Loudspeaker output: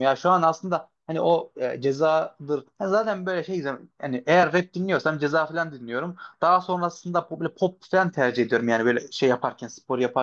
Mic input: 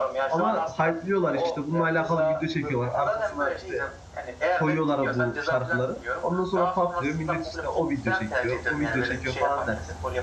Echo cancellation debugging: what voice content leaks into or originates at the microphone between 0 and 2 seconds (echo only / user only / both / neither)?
both